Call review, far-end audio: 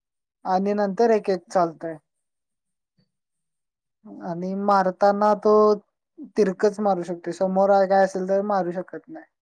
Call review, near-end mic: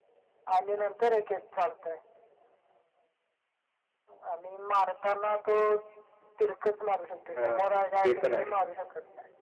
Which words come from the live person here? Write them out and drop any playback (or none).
हा ते पण आहे